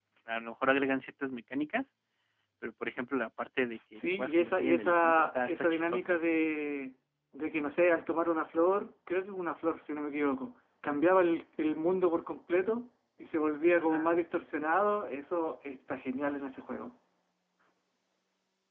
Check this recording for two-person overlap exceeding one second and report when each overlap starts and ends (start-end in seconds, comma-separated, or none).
4.2-6.2